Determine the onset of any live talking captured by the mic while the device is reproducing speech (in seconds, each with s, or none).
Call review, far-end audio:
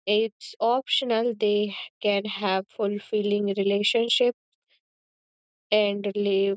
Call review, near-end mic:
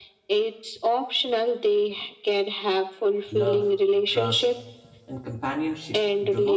3.3 s